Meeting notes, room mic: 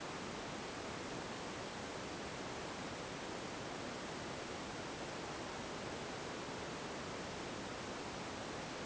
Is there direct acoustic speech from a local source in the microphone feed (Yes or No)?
No